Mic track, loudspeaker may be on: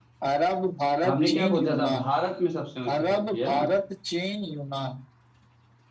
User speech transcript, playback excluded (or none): हमने क्या पूछा था भारत में सबसे ऊंची चोटी है ना